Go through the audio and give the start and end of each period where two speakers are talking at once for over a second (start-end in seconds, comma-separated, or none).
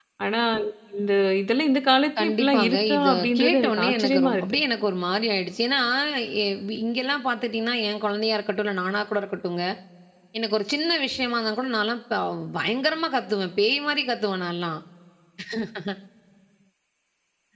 2.2-4.4